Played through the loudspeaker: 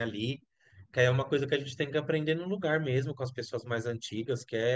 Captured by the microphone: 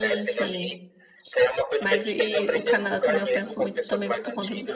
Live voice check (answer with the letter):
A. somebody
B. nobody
A